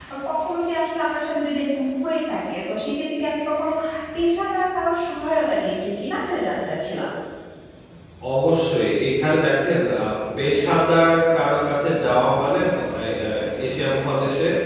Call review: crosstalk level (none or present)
none